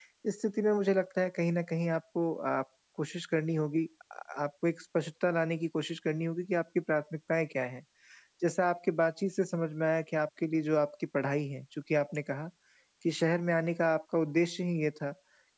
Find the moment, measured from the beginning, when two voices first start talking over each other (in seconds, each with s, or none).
none